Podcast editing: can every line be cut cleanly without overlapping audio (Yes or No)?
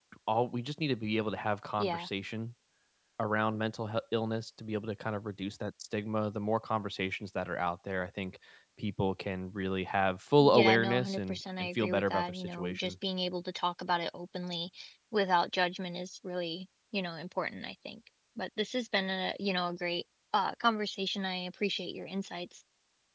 No